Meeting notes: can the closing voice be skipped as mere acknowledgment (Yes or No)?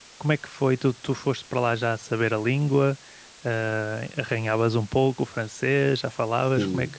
No